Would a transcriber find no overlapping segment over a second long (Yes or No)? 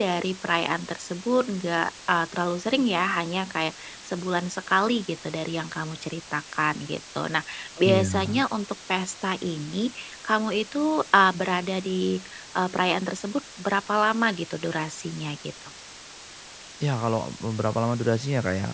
Yes